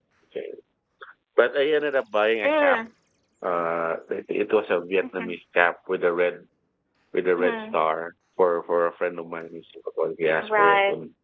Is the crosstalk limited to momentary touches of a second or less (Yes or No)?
Yes